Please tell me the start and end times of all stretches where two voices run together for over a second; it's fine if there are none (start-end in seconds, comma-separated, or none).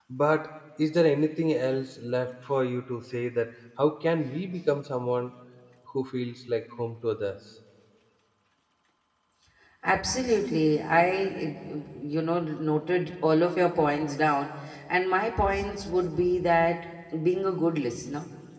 none